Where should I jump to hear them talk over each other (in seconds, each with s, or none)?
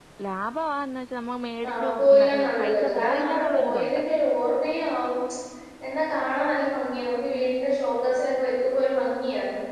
1.6 s